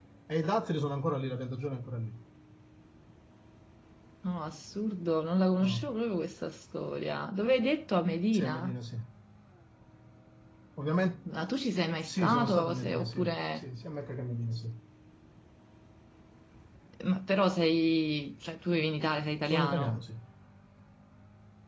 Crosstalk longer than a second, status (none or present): present